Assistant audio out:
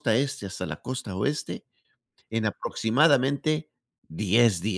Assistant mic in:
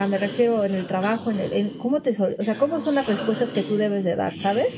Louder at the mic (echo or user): user